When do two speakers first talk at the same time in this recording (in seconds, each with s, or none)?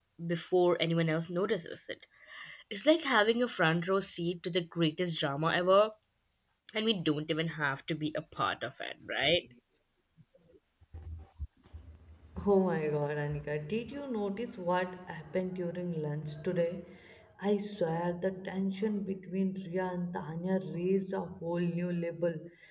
none